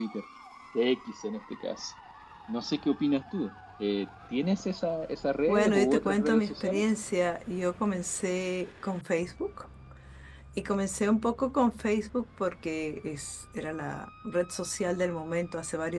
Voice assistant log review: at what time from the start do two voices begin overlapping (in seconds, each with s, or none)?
5.5 s